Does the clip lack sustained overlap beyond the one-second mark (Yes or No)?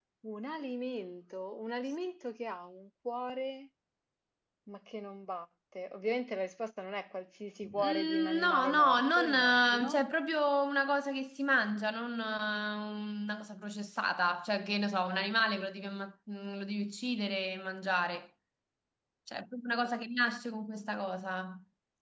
No